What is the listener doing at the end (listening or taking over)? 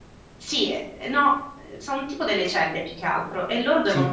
listening